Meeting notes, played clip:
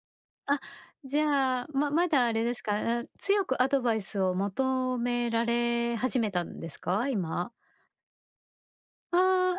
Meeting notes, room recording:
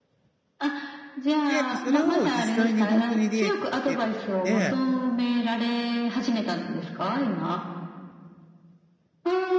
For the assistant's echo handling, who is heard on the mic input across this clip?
both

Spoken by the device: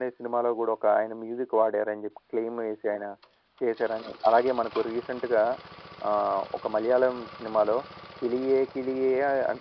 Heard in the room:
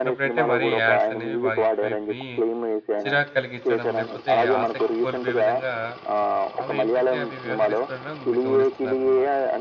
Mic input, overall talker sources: both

